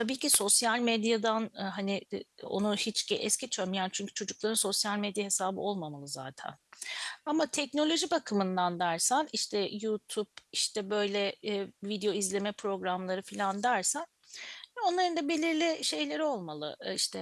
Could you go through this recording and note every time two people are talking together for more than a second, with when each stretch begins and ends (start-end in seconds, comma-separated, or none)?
none